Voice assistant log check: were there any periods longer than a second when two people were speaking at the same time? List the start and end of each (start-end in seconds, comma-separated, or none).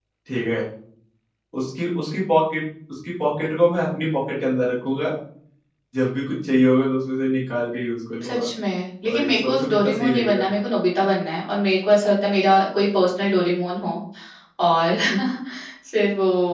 9.1-10.5